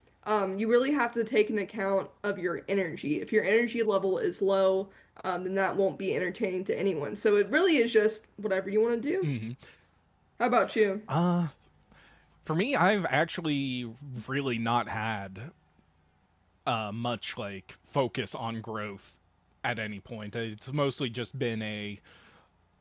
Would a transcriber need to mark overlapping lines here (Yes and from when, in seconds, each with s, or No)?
No